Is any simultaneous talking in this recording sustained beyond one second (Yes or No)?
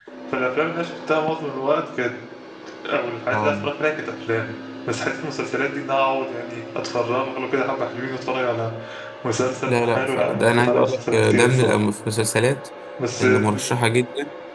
Yes